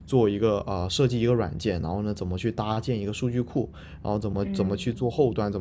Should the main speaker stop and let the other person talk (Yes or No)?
No